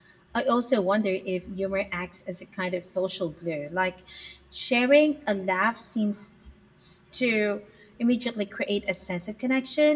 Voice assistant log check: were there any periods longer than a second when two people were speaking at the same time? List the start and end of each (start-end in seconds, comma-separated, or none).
none